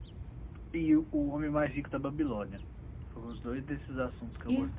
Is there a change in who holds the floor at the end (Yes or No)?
Yes